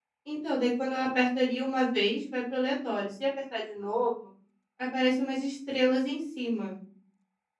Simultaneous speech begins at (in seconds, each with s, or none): none